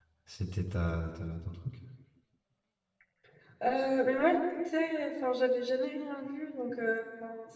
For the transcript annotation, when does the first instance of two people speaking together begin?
none

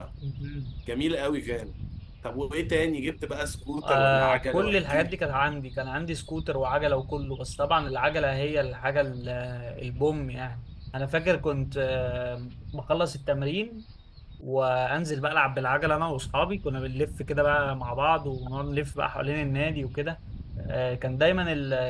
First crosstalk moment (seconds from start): 3.8 s

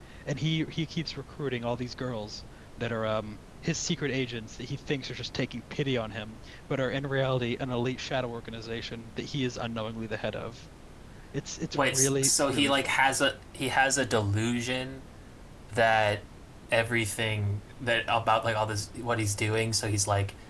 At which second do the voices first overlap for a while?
11.7 s

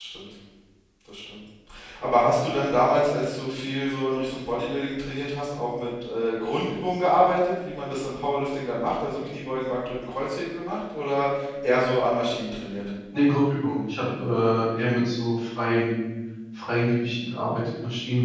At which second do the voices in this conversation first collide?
none

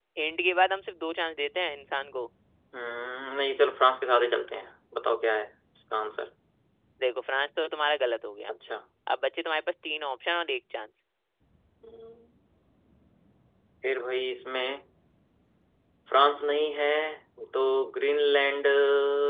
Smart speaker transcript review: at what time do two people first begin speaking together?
none

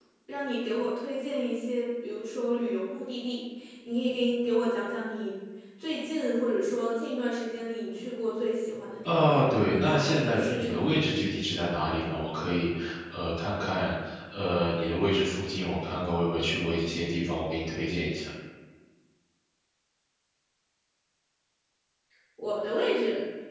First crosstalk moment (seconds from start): 9.0 s

